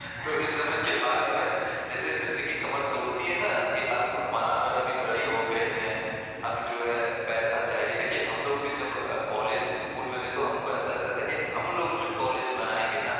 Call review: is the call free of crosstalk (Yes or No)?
No